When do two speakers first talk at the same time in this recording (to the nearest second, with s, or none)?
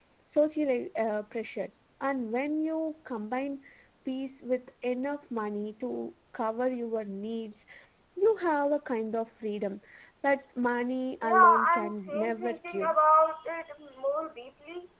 11 s